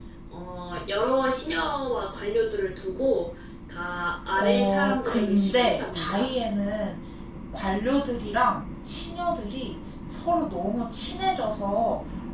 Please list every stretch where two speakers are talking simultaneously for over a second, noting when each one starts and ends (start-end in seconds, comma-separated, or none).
4.3-6.3